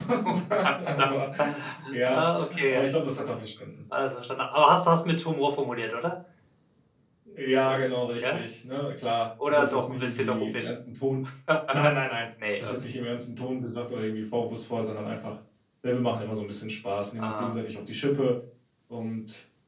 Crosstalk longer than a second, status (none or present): present